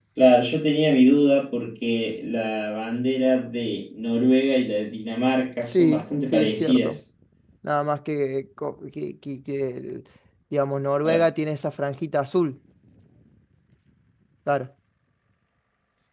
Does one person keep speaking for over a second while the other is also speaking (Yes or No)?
Yes